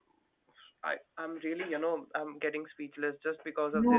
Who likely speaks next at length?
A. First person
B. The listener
B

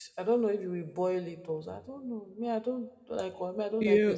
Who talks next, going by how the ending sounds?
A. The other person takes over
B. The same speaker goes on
A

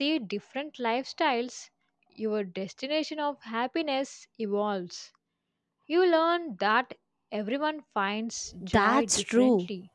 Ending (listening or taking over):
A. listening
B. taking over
B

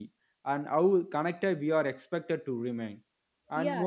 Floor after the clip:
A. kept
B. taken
B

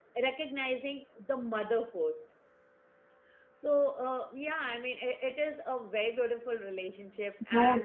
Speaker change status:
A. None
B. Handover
B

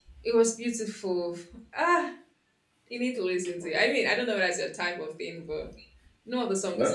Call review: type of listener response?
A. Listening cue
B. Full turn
A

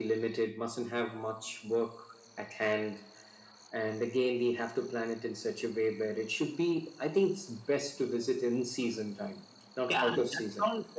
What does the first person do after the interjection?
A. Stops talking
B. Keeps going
A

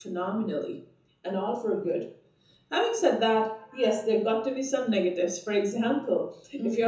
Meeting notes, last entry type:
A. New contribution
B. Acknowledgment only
B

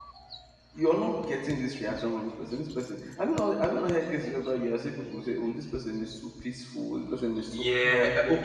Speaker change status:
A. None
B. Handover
B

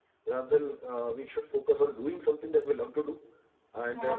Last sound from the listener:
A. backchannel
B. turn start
A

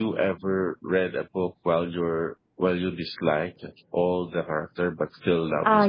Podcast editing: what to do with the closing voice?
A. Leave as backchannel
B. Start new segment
B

